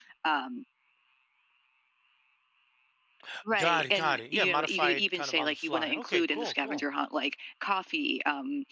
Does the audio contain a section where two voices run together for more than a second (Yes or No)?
Yes